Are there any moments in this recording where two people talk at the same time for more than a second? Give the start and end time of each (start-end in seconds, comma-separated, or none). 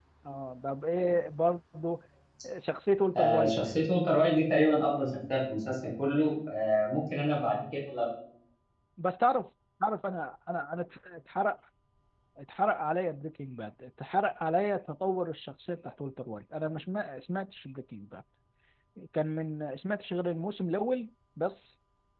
none